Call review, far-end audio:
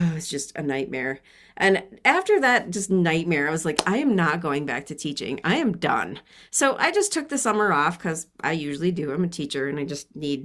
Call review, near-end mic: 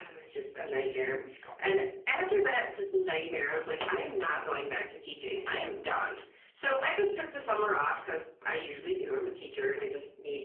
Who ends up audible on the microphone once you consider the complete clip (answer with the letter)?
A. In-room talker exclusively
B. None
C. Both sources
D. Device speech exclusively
C